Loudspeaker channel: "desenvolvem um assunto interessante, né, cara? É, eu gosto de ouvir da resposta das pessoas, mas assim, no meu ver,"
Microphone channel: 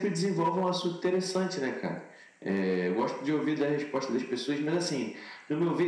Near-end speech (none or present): none